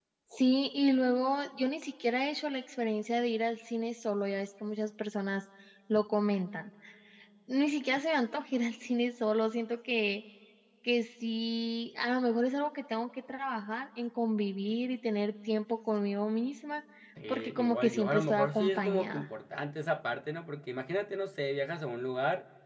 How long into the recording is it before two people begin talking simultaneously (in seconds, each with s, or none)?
17.3 s